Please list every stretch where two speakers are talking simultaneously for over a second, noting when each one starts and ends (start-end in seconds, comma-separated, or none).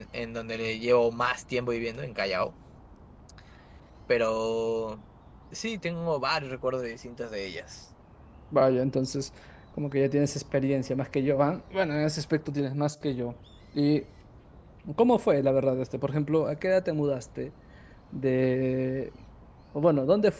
none